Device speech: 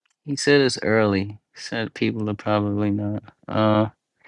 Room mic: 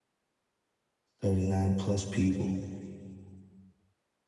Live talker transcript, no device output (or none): 39 plus people.